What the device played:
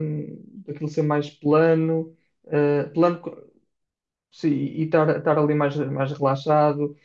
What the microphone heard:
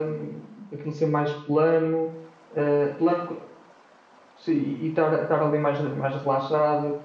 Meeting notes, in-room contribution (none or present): none